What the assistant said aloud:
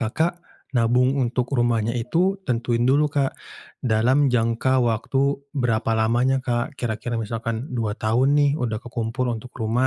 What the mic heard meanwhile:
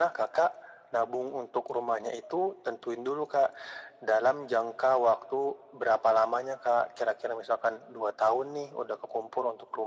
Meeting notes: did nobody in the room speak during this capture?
Yes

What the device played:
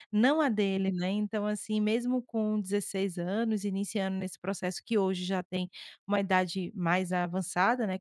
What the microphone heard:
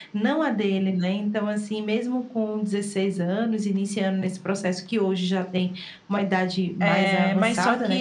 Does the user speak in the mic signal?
Yes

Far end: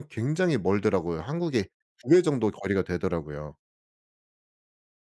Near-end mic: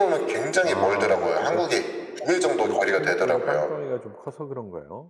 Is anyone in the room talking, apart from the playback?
Yes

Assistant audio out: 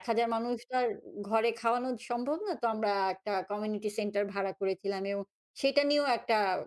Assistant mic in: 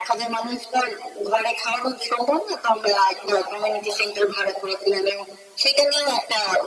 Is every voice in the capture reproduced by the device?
Yes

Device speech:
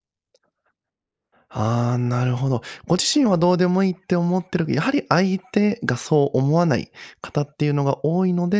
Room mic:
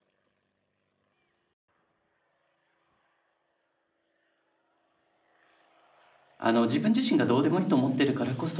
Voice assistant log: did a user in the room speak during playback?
Yes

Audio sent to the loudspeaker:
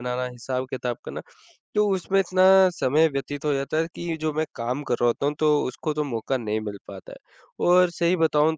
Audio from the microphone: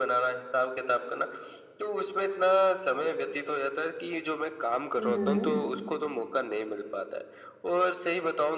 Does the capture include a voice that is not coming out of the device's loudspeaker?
Yes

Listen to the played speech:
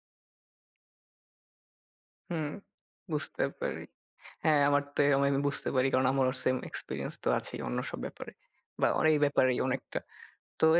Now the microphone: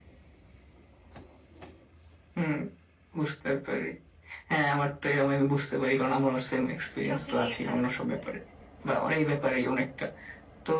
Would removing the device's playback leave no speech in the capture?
No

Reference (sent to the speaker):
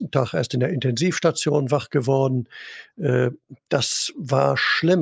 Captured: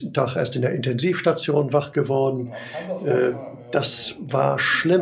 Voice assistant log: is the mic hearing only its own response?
No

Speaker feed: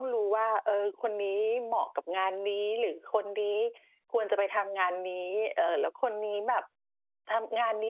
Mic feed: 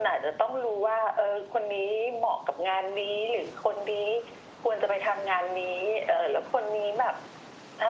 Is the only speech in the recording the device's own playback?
Yes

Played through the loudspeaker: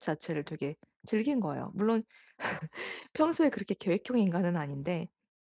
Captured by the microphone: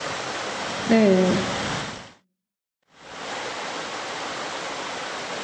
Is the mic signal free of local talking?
No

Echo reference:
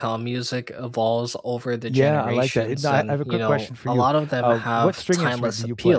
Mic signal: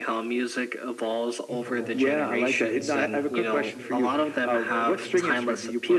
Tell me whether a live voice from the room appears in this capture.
Yes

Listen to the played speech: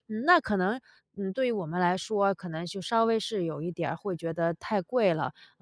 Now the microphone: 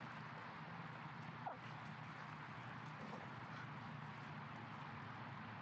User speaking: No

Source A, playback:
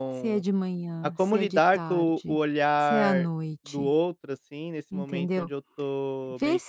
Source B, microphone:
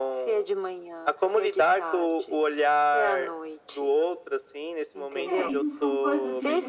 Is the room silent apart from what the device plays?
No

